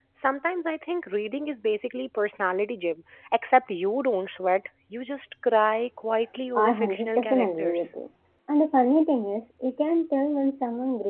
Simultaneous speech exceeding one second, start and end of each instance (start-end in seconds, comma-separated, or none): 6.5-7.9